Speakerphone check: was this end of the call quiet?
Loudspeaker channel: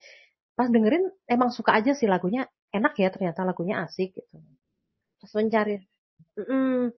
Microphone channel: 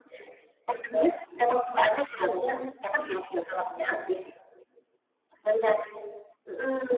Yes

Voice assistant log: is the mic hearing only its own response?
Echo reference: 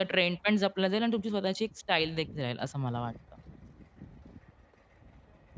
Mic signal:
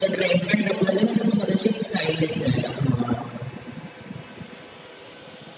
No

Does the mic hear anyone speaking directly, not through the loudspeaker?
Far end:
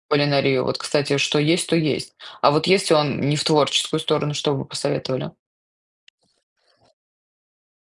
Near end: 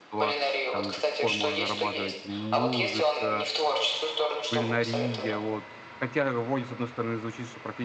Yes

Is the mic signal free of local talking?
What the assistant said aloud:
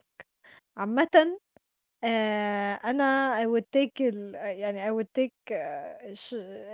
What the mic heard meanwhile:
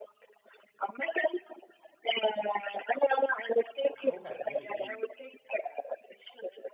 No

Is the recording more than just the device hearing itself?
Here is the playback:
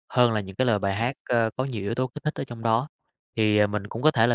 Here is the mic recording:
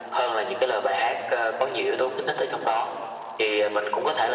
No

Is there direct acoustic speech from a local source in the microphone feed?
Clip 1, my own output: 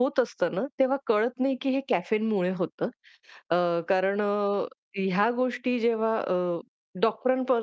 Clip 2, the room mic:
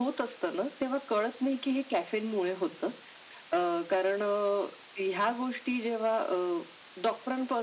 No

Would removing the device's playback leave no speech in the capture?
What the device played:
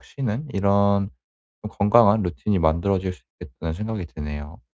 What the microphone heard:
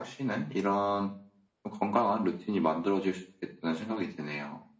Yes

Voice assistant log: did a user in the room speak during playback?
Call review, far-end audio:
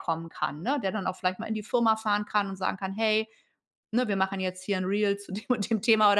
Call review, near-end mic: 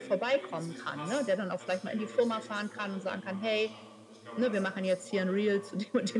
Yes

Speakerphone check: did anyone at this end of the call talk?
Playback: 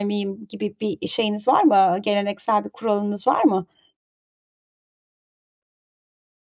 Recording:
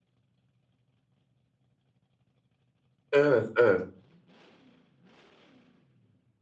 Yes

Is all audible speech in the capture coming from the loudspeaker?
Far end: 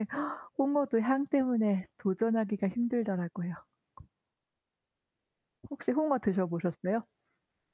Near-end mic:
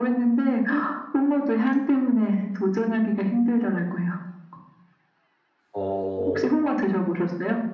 No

